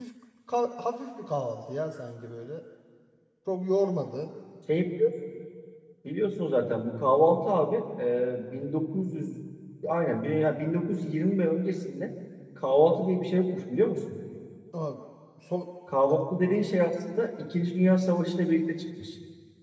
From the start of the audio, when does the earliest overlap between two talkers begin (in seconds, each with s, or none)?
none